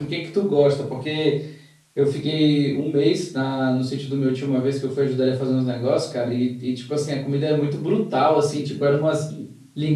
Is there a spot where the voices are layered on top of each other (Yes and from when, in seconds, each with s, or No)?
No